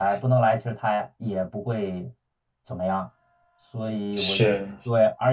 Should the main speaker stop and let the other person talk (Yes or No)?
No